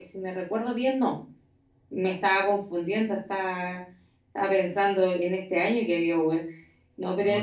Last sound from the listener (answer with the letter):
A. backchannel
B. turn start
A